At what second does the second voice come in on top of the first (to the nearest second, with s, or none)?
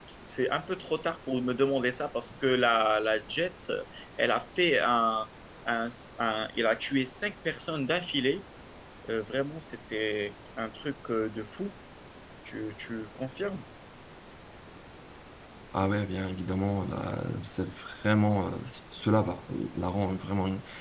none